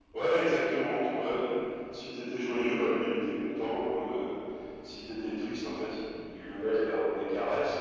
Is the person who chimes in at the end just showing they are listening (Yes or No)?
Yes